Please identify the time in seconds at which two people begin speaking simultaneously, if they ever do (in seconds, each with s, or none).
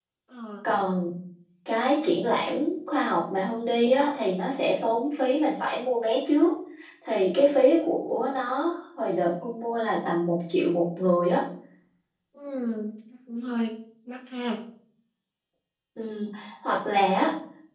none